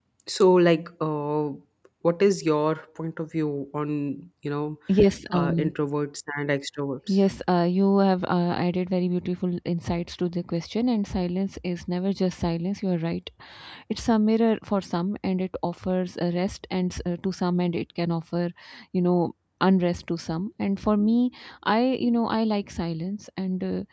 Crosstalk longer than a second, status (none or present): none